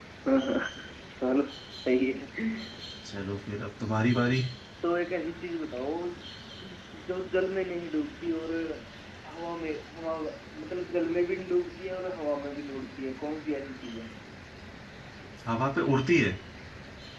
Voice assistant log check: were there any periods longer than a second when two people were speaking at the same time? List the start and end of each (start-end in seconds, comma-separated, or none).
none